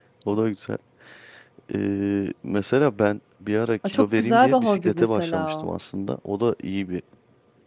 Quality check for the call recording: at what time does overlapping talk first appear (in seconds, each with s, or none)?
3.8 s